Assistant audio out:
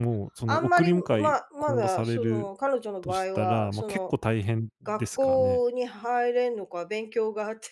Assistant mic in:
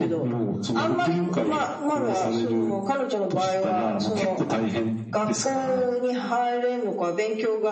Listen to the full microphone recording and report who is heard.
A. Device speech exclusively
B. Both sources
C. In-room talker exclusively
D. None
A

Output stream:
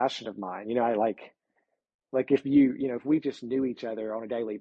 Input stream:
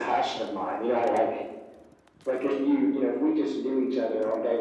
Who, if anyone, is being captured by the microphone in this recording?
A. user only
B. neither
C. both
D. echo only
D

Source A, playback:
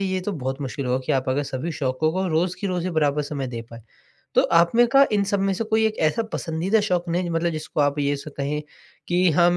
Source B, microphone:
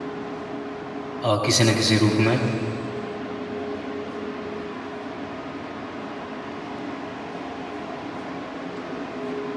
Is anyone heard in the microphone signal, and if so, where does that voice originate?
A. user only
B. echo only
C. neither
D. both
A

